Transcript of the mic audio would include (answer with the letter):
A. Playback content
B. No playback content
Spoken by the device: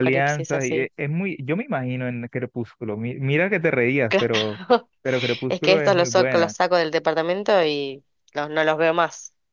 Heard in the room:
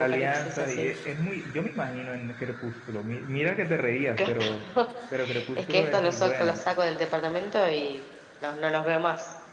A